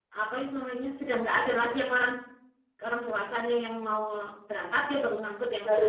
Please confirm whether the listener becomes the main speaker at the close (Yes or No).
Yes